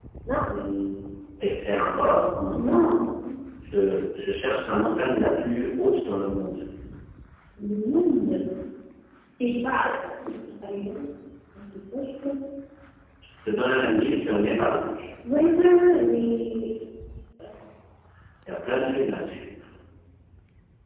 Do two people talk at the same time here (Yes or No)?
No